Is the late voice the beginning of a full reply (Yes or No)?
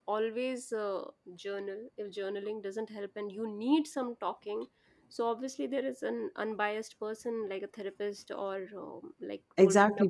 Yes